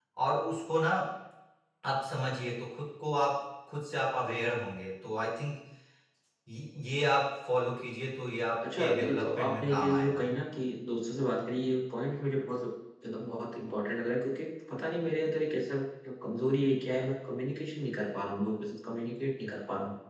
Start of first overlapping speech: 8.6 s

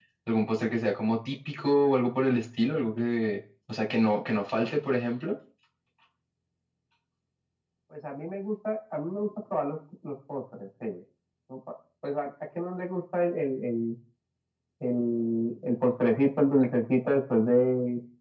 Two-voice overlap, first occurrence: none

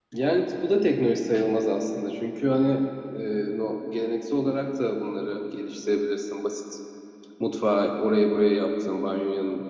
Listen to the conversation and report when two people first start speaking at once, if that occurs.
none

